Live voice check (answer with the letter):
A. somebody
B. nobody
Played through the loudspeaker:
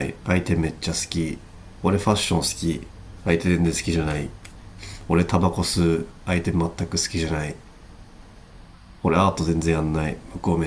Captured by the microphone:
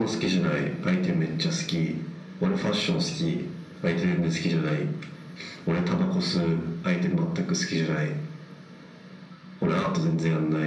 B